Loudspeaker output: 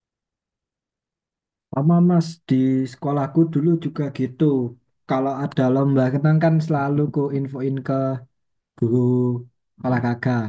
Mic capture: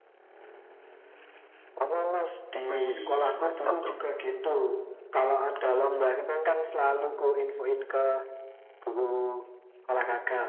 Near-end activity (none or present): present